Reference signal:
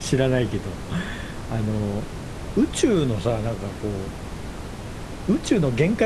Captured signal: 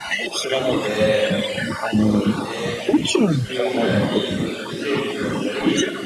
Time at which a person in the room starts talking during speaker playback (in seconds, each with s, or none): 0.5 s